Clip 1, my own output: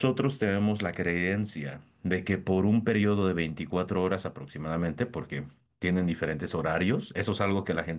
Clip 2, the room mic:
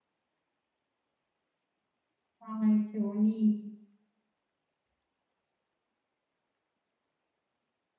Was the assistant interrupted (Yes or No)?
Yes